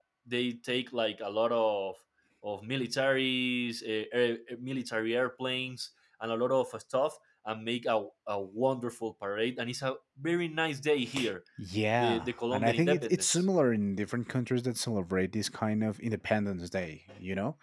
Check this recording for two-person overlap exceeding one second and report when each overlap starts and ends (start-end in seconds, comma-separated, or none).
11.9-13.4